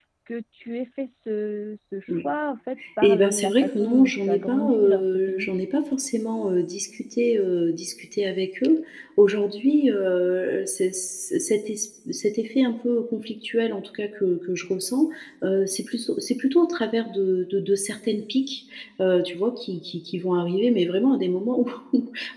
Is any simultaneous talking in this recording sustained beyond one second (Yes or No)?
Yes